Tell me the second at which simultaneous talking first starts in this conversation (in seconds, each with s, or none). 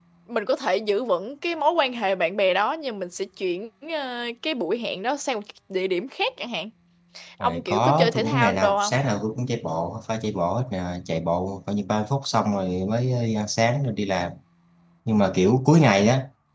7.4 s